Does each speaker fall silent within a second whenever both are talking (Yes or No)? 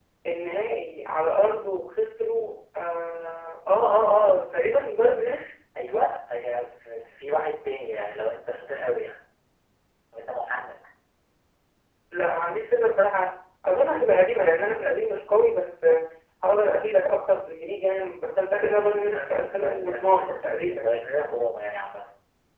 No